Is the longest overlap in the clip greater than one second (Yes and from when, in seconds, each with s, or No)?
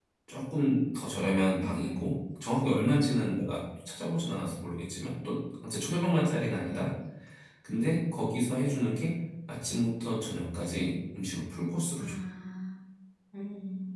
No